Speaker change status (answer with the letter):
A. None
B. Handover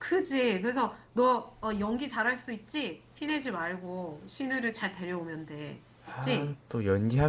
B